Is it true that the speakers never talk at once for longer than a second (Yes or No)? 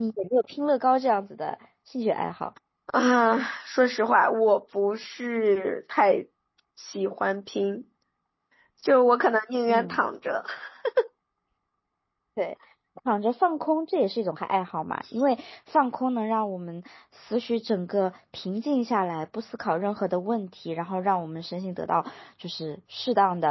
Yes